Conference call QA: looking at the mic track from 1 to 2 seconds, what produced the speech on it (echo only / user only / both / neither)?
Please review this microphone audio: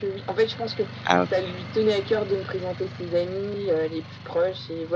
both